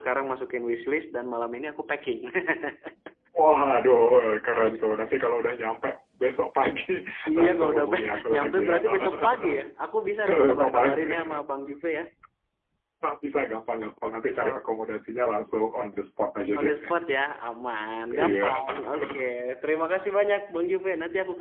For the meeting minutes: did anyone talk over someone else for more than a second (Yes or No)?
Yes